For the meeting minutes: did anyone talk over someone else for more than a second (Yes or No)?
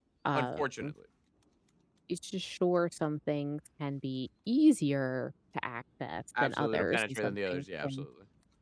Yes